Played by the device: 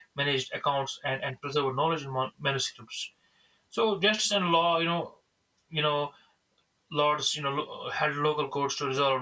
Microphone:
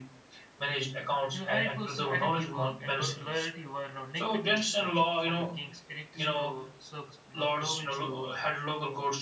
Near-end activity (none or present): present